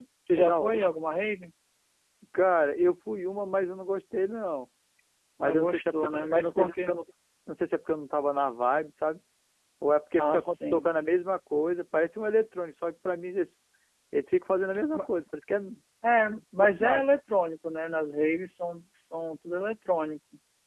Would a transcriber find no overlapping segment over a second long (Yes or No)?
No